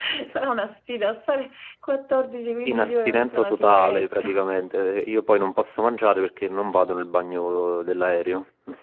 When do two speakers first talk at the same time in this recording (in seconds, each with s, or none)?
2.6 s